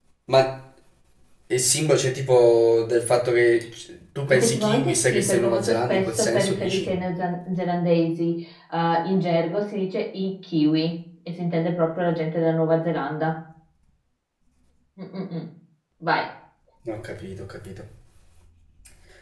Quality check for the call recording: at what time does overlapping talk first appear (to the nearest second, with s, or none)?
4 s